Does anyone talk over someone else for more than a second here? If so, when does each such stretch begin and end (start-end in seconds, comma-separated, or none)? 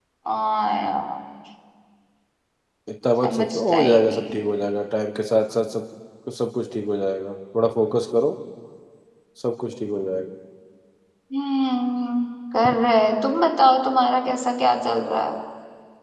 3.2-4.5